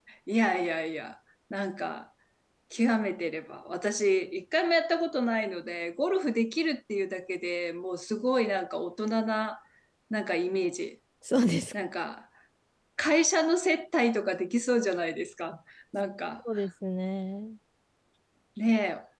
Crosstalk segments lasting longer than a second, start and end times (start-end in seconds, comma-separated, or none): none